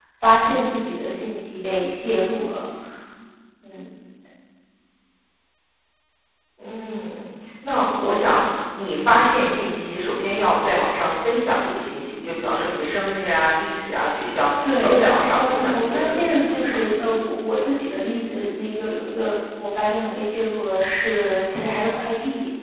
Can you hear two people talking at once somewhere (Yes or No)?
Yes